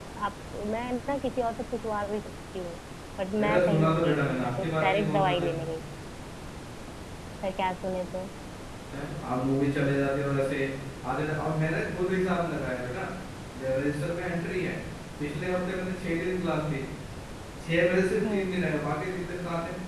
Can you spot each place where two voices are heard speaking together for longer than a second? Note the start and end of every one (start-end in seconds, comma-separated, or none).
3.4-5.5